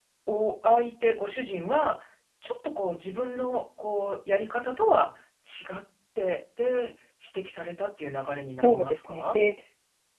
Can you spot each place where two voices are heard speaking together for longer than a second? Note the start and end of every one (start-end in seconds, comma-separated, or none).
8.2-9.4